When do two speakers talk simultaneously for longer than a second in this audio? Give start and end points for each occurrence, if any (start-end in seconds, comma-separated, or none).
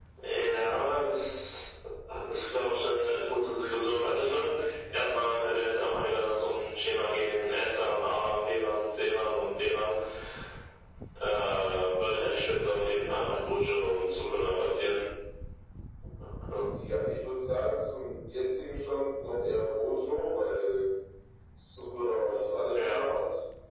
none